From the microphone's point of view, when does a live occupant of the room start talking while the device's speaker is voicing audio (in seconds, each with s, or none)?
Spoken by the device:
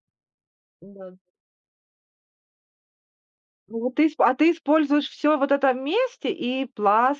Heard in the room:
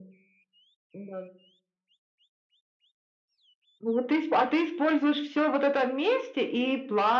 none